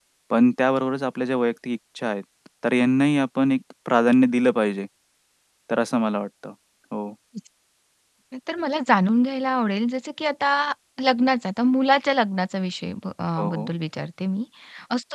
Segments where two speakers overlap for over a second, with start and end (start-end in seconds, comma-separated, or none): none